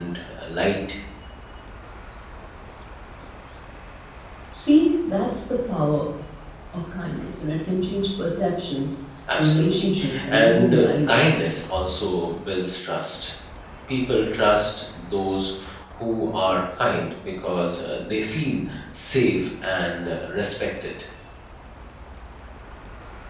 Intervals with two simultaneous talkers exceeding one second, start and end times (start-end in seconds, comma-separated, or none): 9.4-11.4